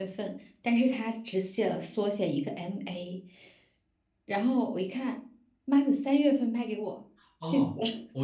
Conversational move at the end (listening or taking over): taking over